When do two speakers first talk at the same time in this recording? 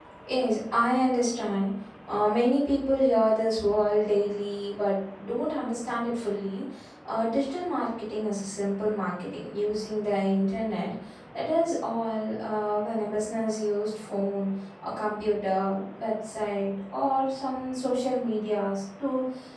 none

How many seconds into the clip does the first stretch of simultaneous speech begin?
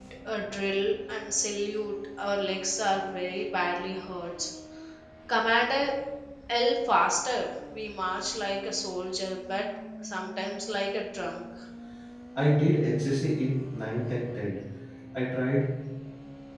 none

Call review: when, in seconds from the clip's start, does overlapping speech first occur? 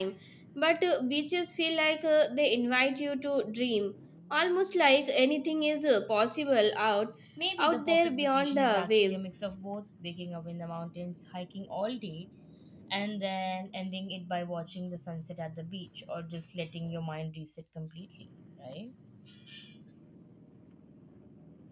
7.6 s

